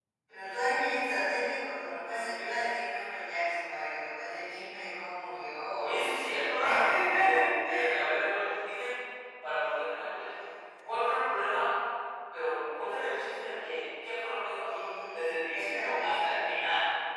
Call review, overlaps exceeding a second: present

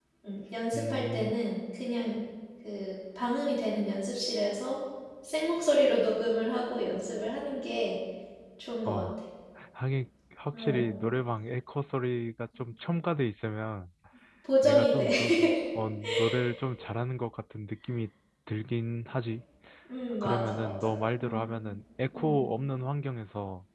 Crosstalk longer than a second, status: present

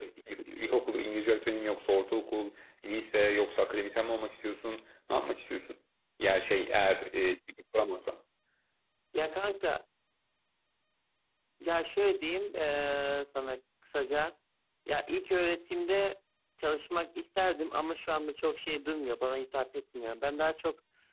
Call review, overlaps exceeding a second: none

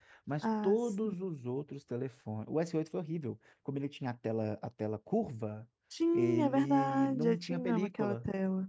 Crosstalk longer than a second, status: present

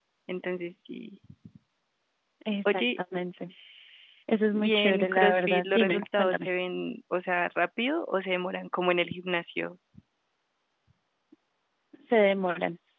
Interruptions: present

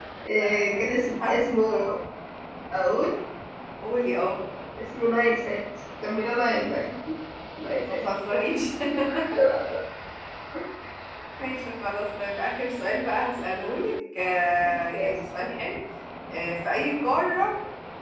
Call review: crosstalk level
present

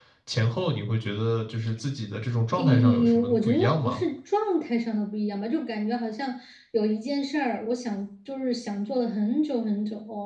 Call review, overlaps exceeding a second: present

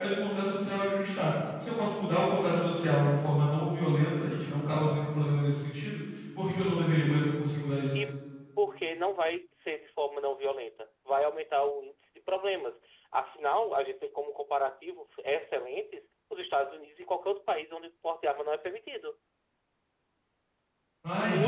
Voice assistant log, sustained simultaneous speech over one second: none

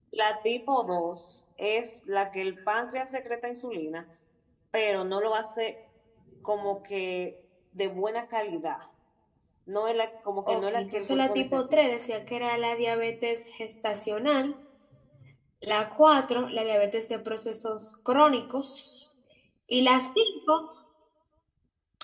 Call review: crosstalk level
present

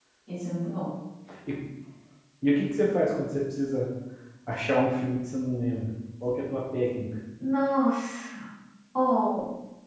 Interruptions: none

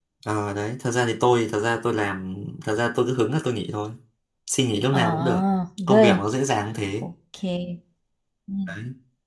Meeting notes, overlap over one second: none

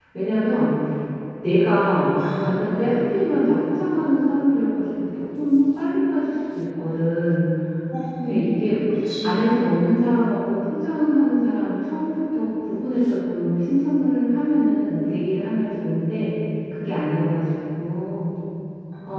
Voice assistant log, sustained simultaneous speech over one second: none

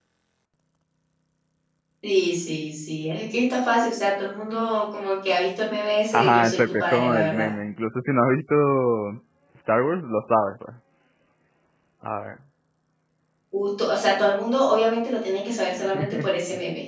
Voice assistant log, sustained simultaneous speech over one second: present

